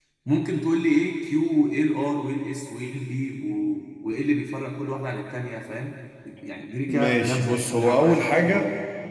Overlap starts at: 6.9 s

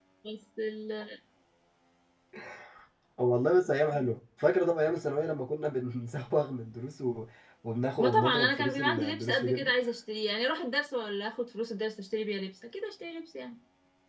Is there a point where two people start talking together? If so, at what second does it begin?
8.0 s

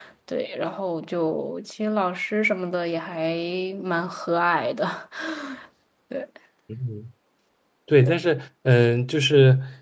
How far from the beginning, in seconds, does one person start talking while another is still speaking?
none

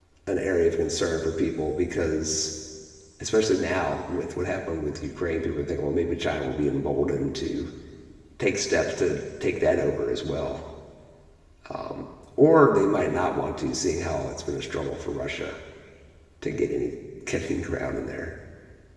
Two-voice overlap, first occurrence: none

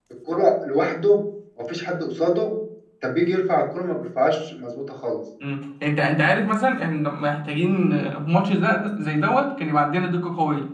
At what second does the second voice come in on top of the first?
none

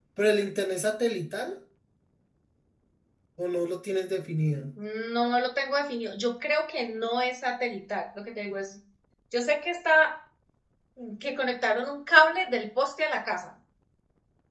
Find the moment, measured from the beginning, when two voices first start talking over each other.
none

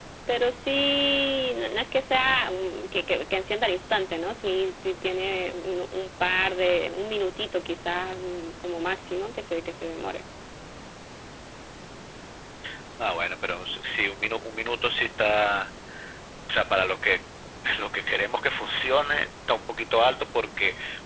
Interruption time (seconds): none

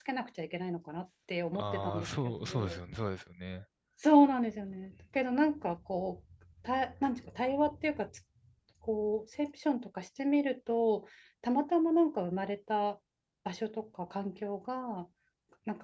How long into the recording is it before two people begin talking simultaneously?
1.4 s

